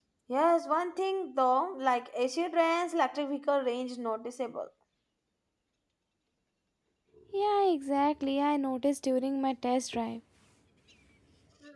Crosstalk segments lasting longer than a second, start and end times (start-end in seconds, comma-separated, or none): none